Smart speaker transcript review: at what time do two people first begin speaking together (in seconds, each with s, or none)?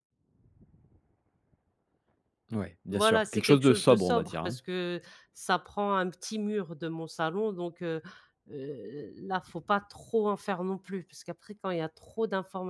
2.9 s